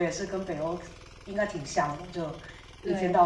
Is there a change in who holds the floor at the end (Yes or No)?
No